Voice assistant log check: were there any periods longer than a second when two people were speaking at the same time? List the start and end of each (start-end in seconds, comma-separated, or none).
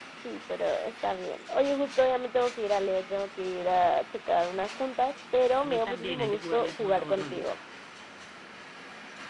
5.6-7.4